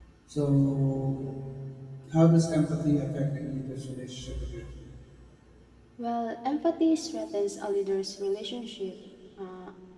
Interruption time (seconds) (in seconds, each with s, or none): none